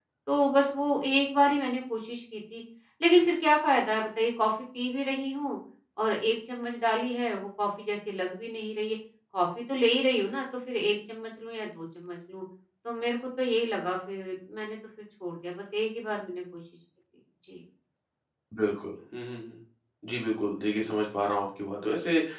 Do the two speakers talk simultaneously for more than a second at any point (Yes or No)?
No